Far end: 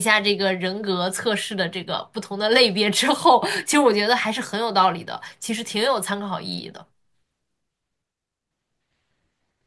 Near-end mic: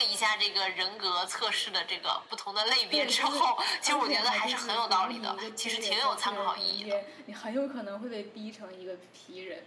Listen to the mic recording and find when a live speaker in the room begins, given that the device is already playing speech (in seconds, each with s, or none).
2.9 s